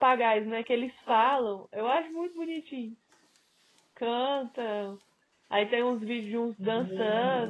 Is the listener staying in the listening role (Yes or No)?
Yes